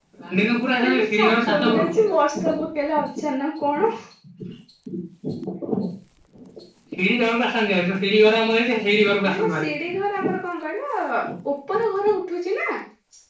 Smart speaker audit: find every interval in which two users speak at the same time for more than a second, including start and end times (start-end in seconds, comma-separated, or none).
0.9-2.1